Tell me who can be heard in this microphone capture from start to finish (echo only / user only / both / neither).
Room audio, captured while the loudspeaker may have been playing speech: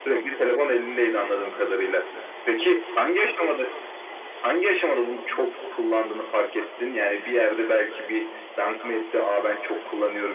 echo only